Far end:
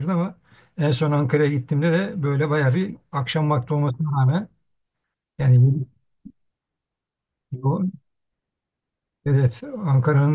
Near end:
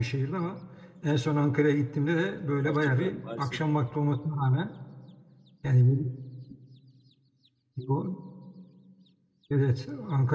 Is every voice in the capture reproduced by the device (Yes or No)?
No